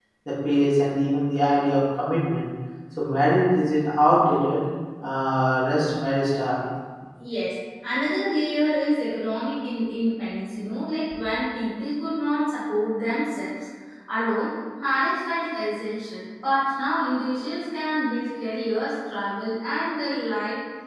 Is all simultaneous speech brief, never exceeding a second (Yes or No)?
Yes